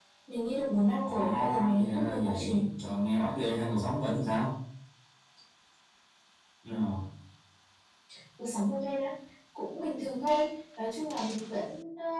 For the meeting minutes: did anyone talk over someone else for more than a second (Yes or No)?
Yes